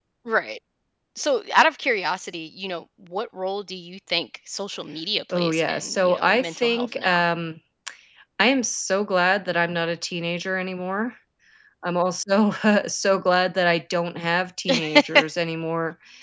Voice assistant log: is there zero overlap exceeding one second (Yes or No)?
No